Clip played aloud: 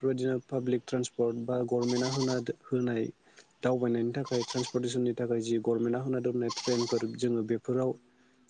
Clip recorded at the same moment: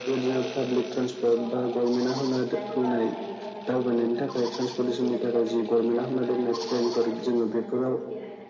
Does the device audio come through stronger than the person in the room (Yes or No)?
Yes